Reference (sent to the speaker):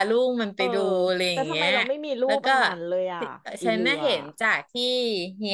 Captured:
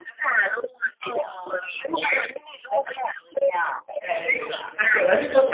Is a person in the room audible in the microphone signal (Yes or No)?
Yes